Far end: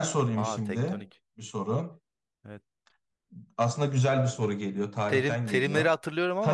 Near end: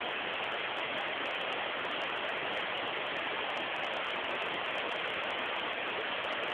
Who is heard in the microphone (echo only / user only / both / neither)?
neither